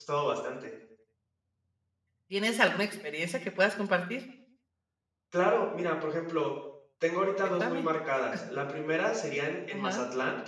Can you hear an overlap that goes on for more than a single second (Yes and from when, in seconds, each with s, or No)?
No